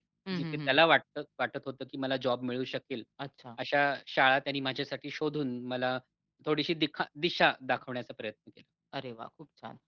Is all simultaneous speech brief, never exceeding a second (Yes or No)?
Yes